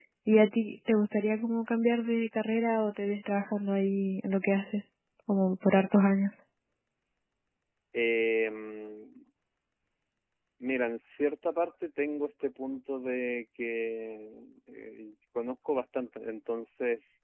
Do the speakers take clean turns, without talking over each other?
Yes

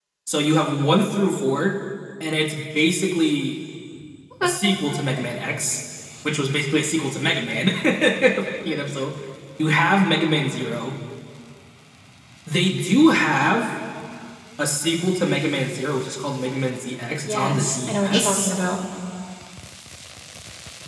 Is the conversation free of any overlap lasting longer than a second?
No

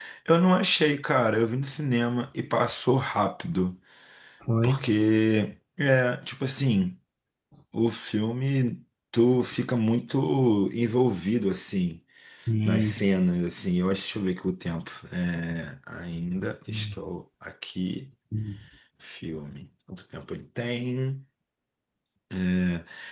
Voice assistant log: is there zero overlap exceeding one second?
Yes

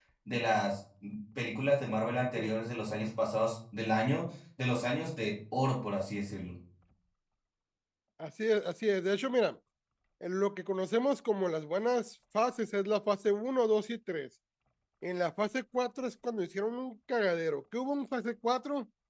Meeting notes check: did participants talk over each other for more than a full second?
No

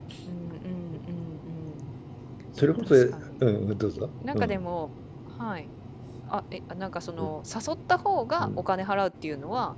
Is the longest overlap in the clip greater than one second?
No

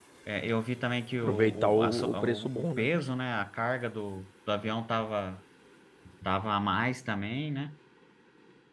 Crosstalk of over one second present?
Yes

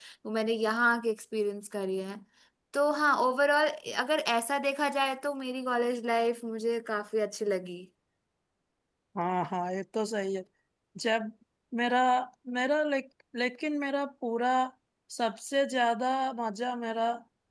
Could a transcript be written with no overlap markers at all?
Yes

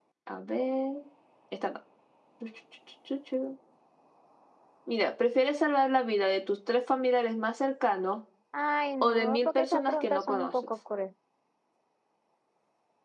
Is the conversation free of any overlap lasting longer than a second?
No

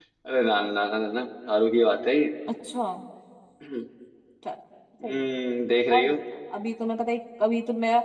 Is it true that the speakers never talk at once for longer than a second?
Yes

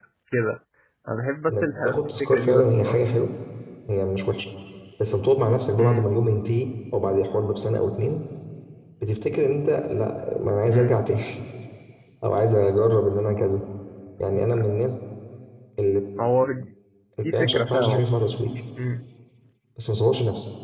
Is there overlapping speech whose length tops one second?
Yes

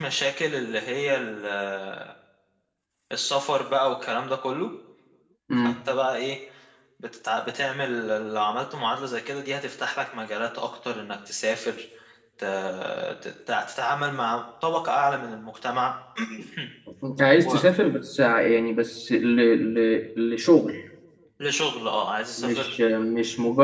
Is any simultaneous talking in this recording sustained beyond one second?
No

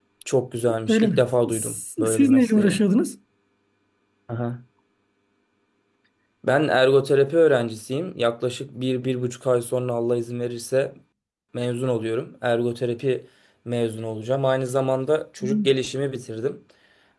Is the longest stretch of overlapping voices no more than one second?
No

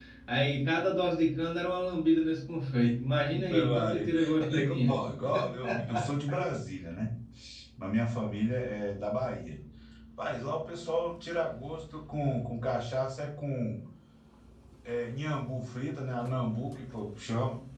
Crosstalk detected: Yes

